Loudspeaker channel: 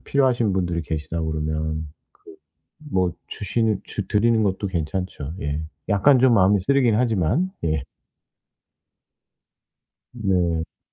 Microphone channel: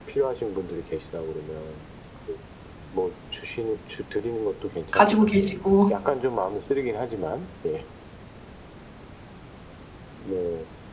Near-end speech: present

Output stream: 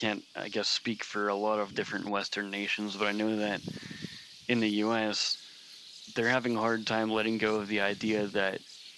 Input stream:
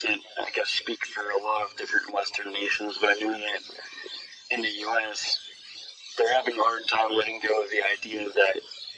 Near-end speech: none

